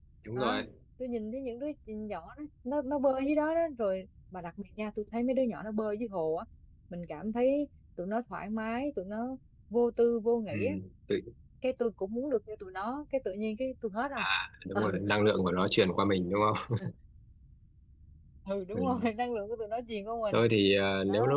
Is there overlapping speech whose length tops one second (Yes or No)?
No